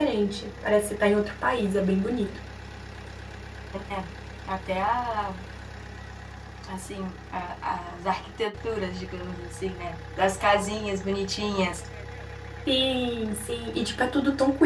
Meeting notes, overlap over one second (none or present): none